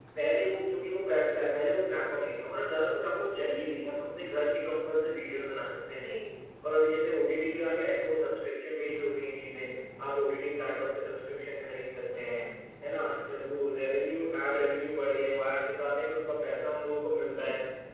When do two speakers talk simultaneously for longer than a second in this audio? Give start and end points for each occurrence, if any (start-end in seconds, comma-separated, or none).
none